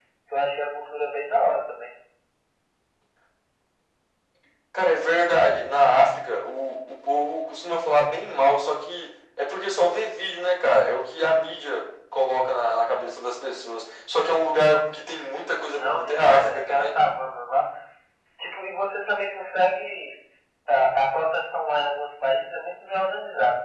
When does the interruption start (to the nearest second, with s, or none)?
16 s